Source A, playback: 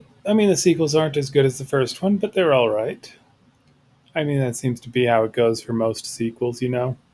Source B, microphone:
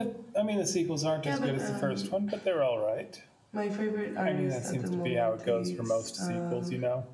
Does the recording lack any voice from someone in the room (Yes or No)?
No